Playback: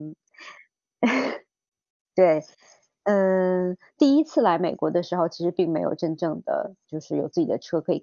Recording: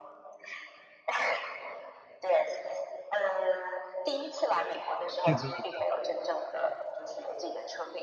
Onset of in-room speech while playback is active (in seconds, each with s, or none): 5.2 s